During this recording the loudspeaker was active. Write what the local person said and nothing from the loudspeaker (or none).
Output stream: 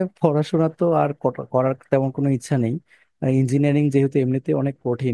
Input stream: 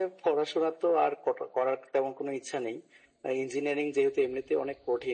none